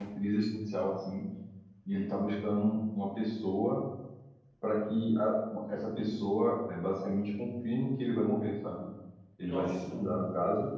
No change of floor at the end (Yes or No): Yes